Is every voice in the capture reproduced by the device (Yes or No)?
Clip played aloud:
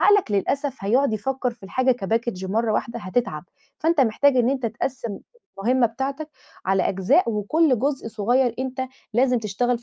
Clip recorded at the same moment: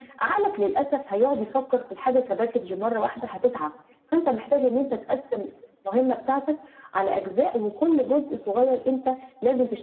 Yes